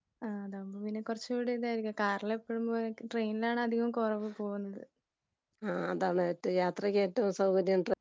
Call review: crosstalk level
none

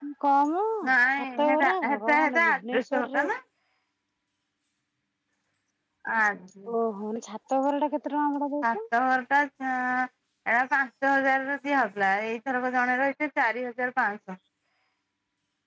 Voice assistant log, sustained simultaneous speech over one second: present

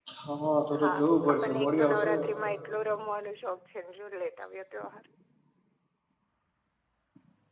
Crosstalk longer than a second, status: present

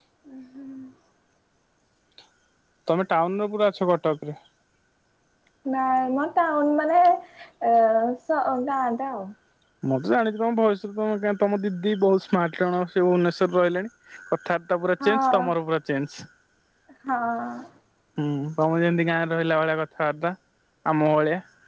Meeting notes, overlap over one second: none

